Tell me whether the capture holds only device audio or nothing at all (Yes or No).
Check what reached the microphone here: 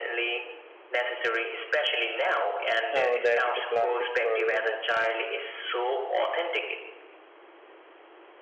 No